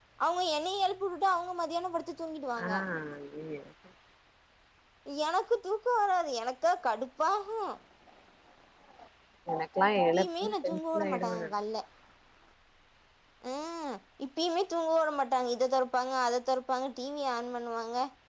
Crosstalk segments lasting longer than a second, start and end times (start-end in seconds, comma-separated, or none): 10.1-11.5